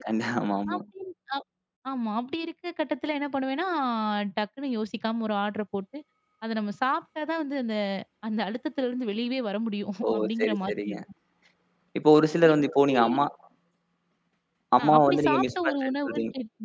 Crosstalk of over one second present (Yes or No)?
Yes